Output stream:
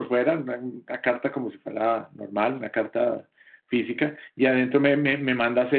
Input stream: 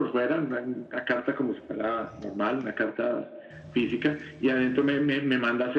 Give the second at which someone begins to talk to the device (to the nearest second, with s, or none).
none